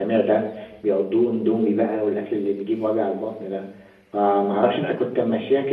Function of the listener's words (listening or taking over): listening